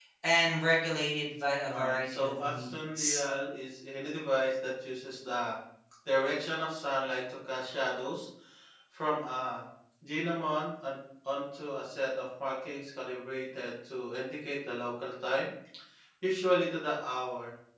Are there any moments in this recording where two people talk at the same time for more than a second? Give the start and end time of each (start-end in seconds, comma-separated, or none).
1.7-3.2